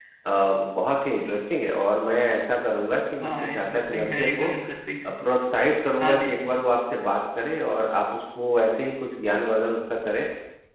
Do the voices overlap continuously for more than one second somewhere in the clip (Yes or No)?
Yes